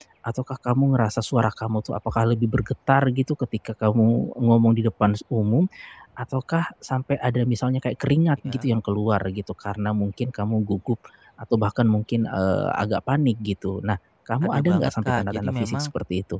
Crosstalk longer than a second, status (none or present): present